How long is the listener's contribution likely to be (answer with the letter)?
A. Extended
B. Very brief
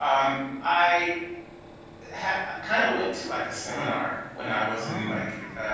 B